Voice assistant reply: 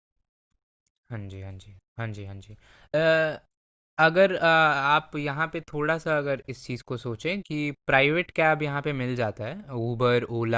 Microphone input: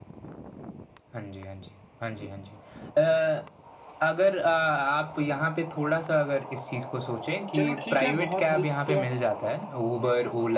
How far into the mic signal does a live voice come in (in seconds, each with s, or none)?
7.5 s